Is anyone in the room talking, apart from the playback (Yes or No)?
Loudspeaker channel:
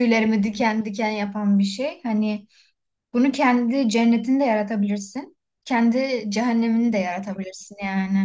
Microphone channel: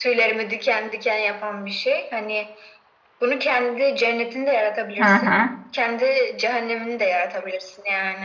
Yes